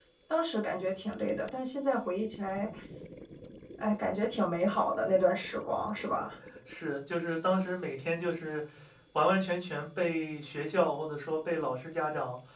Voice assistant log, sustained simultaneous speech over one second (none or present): none